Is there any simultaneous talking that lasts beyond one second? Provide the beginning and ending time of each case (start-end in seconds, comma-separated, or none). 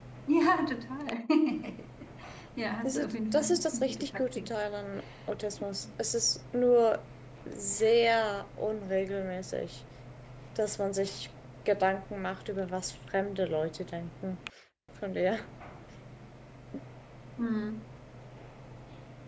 2.8-4.5